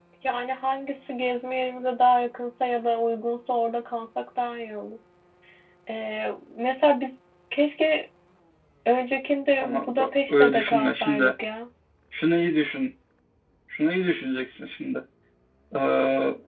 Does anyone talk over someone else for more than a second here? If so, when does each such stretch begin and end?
9.6-11.3

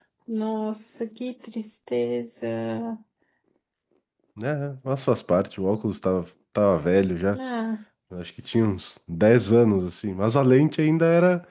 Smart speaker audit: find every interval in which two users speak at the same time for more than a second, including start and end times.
none

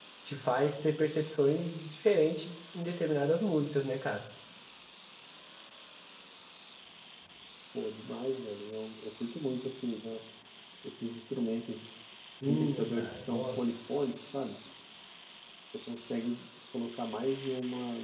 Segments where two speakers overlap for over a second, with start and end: 12.4-13.6

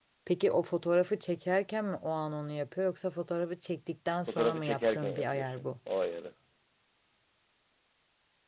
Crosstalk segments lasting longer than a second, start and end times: 4.3-5.7

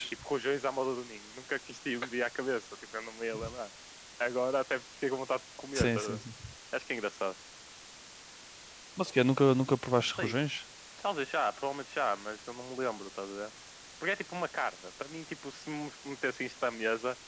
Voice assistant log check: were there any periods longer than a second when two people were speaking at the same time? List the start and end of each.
none

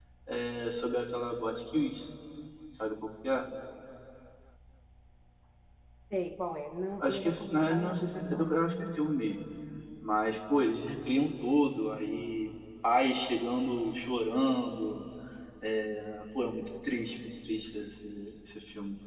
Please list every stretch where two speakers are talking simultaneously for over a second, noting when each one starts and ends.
7.0-8.5

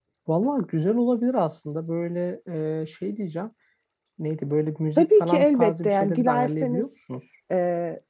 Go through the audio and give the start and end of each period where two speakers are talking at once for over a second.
5.0-6.8

